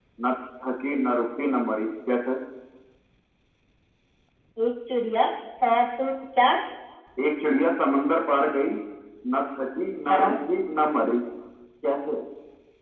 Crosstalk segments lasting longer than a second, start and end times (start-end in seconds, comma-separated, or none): none